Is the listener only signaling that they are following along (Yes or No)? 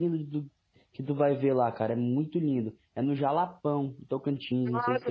No